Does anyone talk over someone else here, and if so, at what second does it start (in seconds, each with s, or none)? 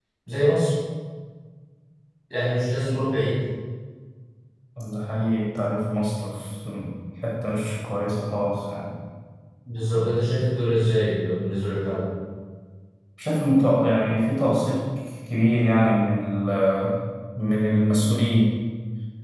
none